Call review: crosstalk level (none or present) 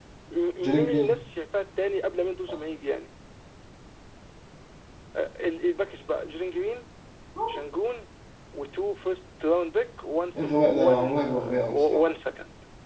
present